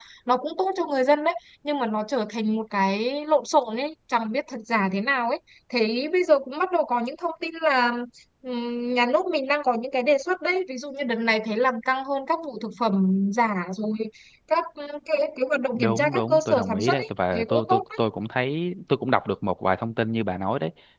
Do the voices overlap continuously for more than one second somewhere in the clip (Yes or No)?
Yes